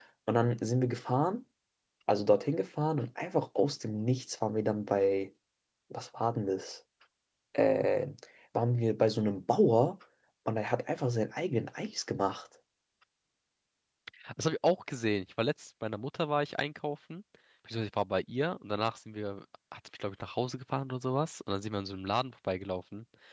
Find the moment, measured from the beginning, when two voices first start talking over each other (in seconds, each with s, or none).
none